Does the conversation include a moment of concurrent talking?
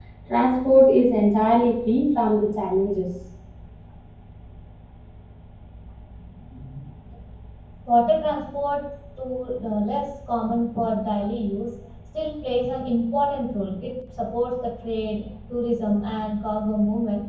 No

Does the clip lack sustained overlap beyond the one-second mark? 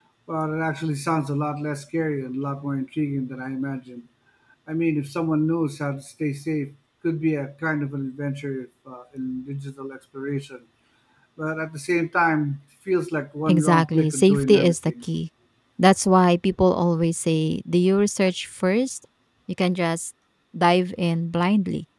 No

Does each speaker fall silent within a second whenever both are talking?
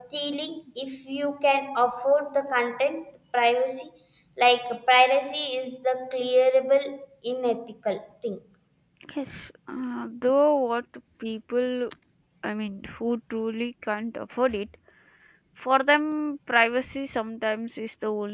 Yes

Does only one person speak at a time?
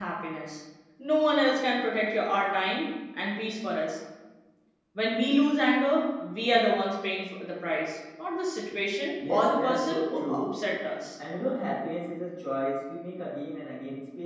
No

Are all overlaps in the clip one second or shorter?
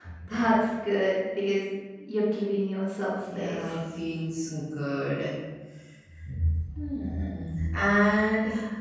Yes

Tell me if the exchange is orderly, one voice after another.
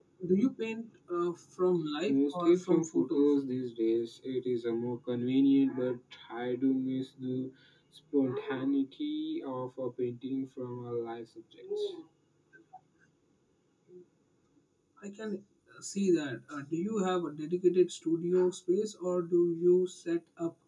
No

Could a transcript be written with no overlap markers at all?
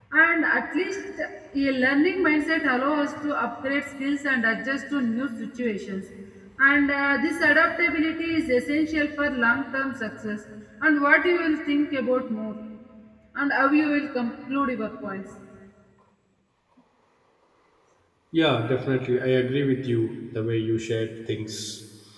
Yes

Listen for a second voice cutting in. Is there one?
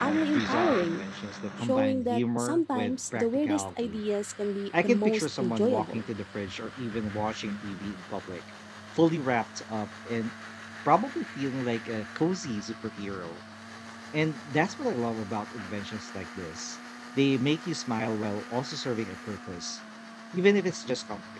Yes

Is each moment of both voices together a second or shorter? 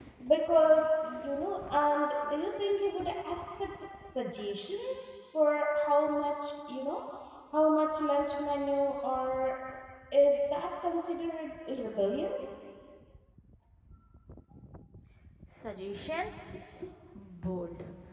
Yes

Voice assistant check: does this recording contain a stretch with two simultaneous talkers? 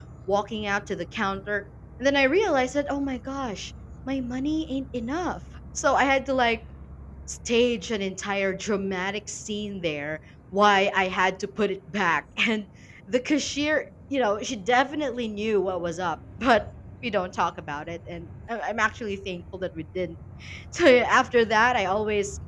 No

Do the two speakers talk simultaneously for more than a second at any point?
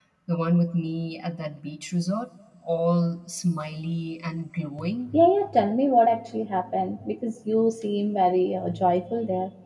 No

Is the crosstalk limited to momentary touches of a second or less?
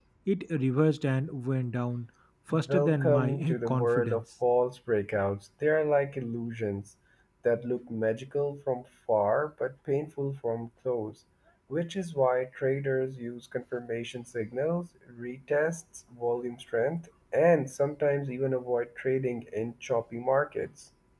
No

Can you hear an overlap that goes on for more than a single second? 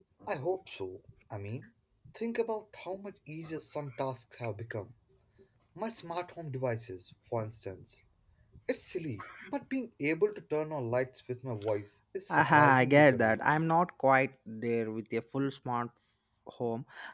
Yes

